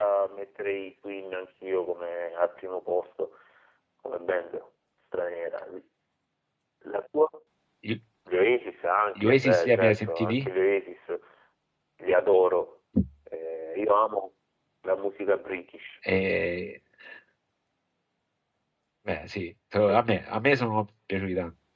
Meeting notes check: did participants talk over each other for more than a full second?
Yes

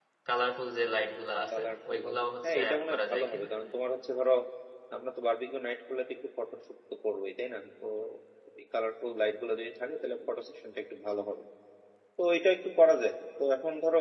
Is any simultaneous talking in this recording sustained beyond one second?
Yes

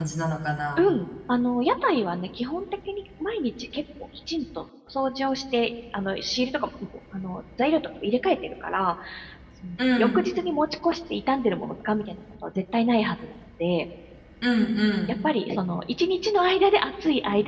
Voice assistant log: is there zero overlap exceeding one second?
Yes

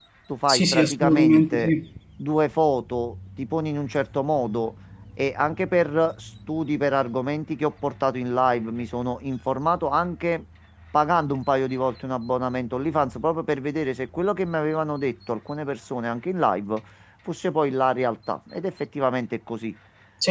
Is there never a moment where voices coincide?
No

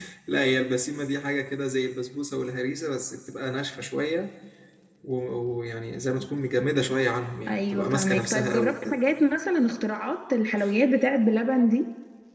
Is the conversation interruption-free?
No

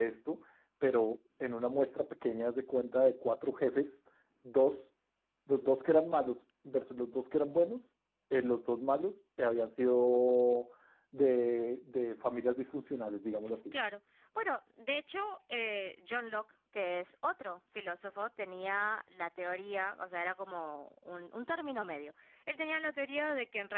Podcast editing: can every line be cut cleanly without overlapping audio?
Yes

